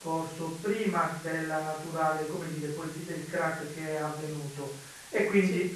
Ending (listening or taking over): listening